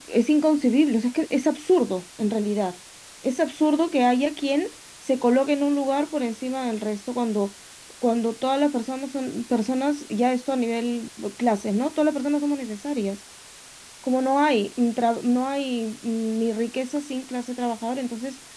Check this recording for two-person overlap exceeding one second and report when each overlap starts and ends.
none

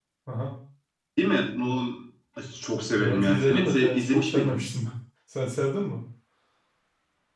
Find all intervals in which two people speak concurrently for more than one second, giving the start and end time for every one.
3.0-4.6

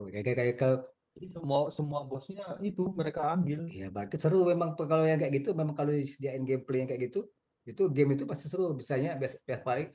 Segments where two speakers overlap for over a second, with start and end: none

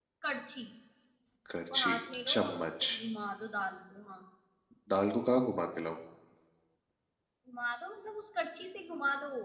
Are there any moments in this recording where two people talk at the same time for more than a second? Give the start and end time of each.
1.7-3.0

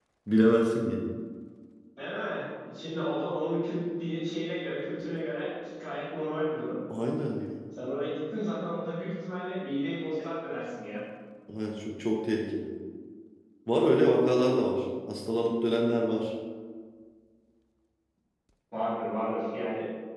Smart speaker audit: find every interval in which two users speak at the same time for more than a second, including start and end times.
none

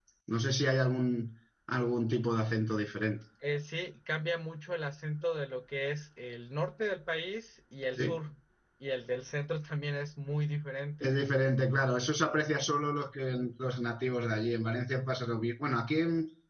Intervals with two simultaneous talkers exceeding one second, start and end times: none

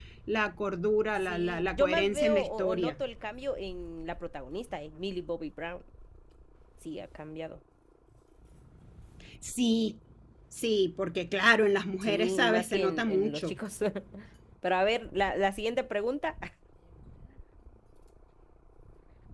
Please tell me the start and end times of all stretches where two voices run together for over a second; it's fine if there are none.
1.3-3.0, 12.0-13.6

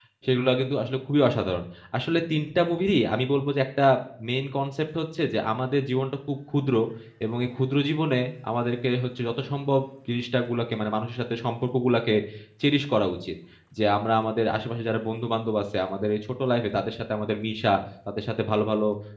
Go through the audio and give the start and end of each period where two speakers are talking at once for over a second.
none

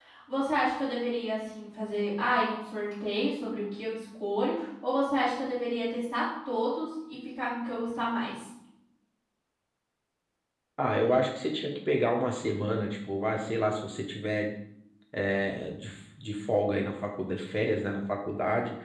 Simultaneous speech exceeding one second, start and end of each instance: none

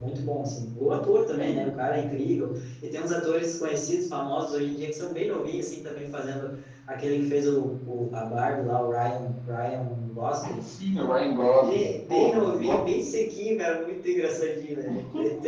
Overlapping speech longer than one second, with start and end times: 11.6-12.8

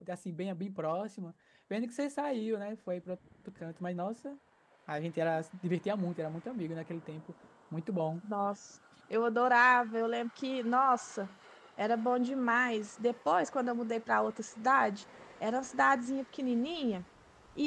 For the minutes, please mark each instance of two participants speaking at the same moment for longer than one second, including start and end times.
none

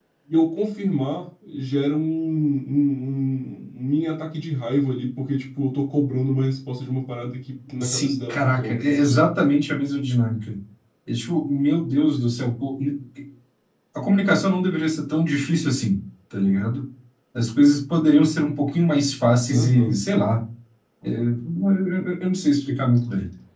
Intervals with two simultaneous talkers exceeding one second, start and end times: 7.8-9.2

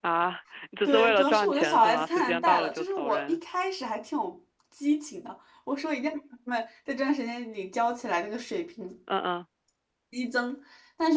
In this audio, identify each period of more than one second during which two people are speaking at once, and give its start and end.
0.8-3.4

